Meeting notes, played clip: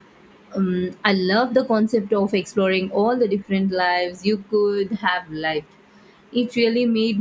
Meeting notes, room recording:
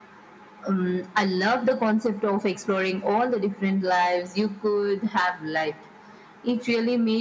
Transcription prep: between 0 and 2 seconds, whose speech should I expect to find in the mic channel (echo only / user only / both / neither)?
echo only